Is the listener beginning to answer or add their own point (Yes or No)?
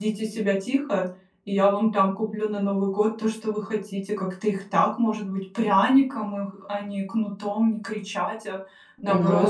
Yes